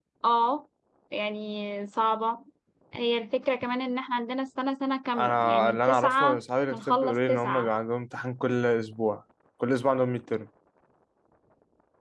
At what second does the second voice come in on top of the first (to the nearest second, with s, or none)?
5 s